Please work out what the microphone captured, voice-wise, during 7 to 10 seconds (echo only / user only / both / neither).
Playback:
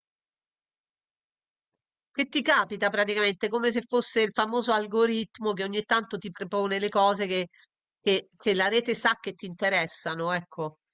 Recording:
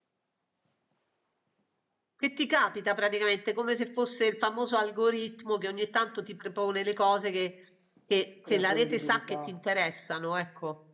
both